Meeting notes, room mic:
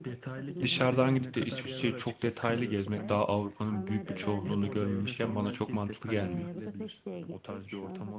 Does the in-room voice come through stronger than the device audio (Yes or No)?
Yes